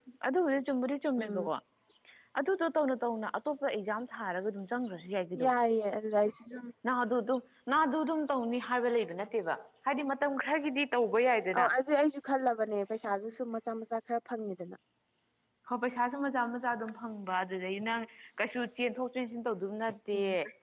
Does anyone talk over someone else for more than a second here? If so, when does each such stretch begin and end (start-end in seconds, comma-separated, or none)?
none